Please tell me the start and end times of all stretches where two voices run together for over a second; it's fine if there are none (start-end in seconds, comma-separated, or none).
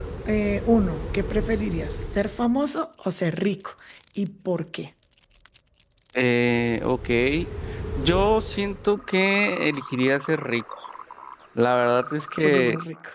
none